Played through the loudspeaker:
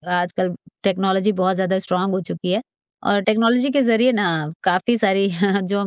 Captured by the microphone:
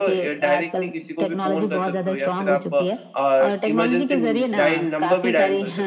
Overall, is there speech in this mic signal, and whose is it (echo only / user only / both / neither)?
both